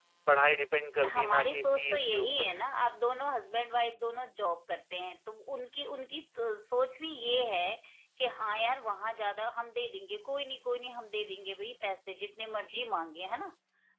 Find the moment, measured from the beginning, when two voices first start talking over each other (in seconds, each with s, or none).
1.0 s